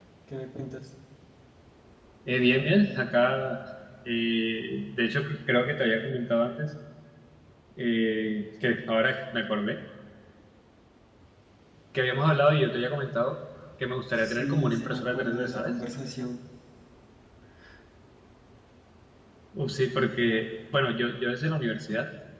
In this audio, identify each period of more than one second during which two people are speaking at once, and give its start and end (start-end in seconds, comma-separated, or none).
14.2-15.7